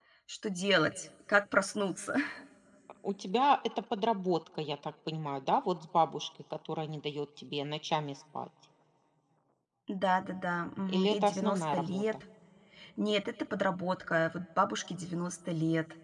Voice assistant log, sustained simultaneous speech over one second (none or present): present